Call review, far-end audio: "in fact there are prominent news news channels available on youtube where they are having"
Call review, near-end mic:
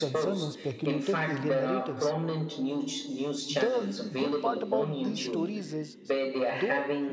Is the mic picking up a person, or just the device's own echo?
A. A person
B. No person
A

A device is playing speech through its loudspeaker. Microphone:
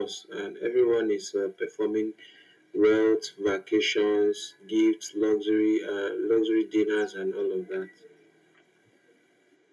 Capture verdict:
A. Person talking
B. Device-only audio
B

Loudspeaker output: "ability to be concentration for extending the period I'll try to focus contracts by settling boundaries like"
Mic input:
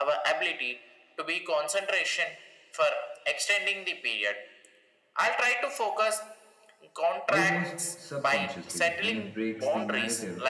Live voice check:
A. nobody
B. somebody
B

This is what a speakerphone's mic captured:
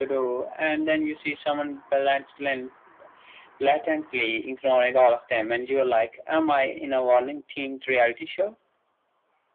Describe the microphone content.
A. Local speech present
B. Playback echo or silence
B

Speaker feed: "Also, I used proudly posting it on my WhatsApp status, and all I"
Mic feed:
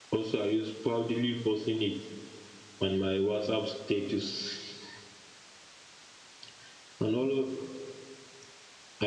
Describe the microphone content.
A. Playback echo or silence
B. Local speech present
A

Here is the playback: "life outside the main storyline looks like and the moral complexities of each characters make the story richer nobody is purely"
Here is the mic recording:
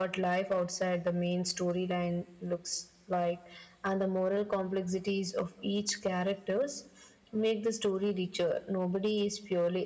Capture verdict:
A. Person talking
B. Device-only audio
B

